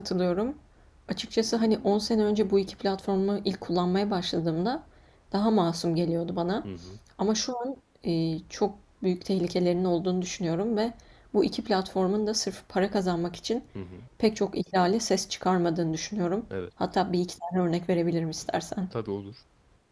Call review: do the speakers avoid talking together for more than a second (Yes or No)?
Yes